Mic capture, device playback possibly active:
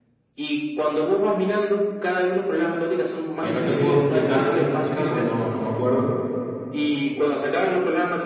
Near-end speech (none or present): present